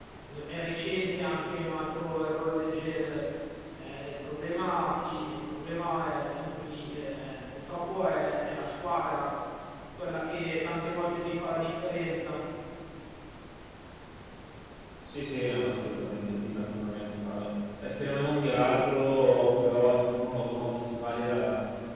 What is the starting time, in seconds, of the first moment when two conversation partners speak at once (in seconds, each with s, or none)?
none